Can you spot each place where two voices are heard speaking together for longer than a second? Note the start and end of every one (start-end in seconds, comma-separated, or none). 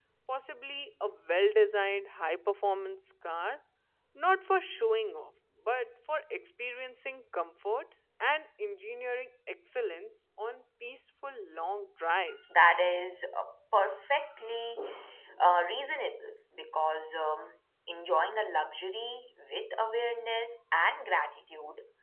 none